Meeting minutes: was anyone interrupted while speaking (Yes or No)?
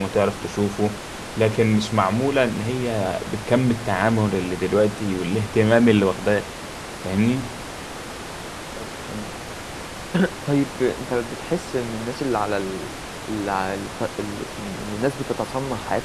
No